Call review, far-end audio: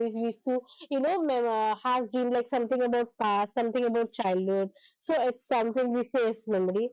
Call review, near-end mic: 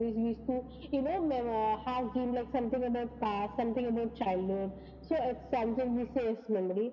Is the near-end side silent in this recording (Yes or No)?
Yes